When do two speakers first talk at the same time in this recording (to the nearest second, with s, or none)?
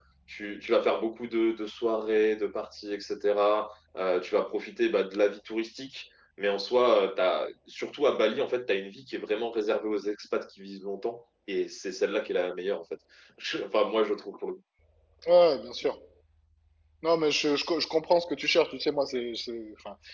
none